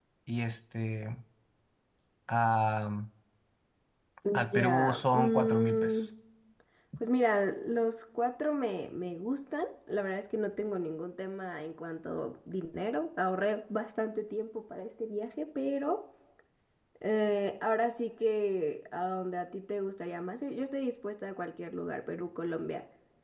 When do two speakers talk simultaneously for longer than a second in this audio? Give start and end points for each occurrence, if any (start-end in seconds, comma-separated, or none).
4.5-6.0